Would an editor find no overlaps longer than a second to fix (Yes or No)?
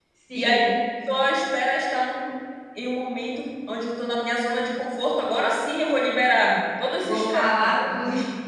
Yes